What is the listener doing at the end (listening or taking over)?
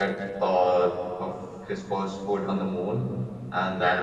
listening